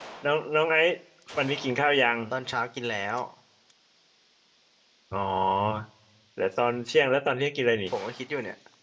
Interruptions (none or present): none